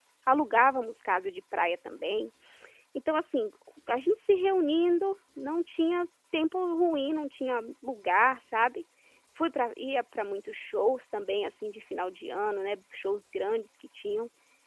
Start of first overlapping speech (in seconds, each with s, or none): none